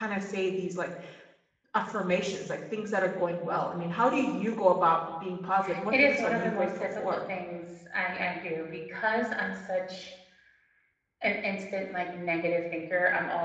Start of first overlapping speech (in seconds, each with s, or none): 5.9 s